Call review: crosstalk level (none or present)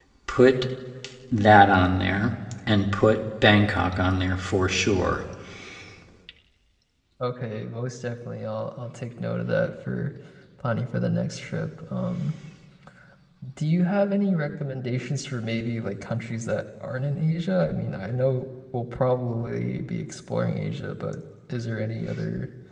none